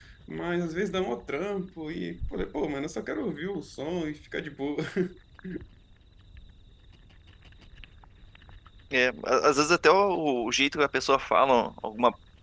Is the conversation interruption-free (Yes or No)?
Yes